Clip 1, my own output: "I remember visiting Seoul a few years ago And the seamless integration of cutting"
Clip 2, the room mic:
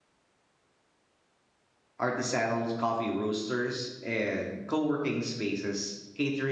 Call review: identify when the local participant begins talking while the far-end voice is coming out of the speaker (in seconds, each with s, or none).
2.0 s